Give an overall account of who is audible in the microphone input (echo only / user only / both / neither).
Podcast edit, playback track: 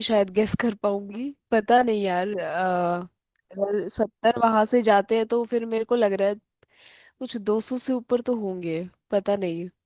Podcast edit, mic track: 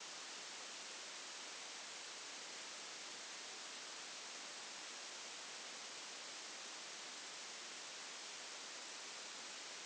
neither